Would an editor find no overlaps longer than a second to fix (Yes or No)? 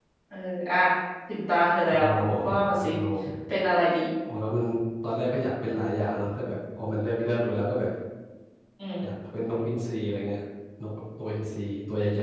Yes